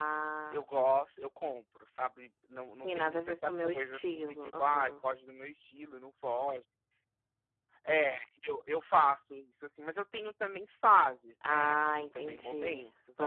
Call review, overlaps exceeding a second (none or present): present